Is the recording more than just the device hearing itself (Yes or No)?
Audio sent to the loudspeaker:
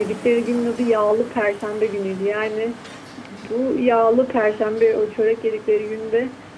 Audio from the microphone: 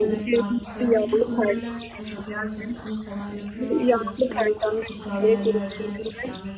Yes